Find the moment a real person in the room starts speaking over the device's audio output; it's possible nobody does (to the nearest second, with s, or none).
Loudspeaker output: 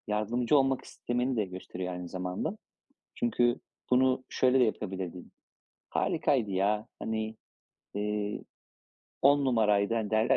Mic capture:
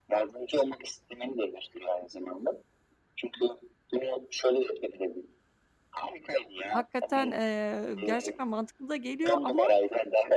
7 s